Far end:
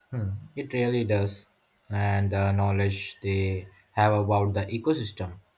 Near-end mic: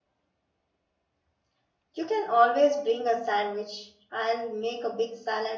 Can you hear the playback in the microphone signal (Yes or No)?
No